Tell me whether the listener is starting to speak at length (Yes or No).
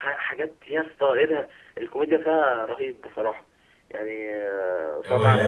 Yes